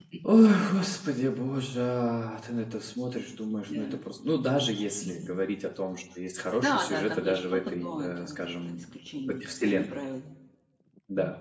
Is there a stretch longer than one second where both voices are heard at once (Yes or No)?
Yes